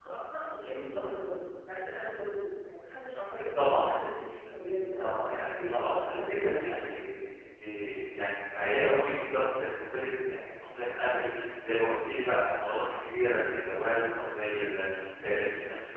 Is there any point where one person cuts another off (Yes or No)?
Yes